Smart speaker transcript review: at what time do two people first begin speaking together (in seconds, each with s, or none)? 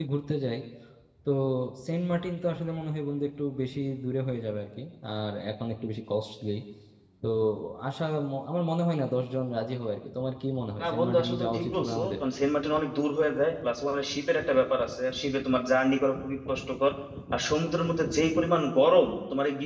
10.8 s